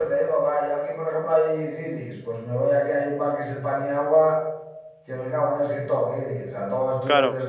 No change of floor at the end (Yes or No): Yes